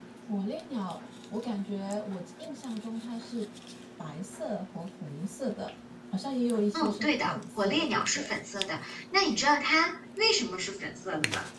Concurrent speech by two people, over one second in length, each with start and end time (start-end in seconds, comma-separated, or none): 6.7-8.3